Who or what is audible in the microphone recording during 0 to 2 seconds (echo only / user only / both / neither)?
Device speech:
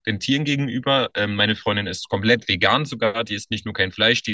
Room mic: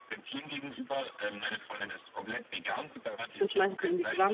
echo only